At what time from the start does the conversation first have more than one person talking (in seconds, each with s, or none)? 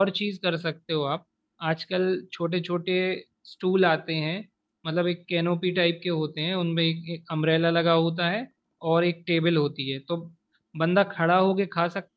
none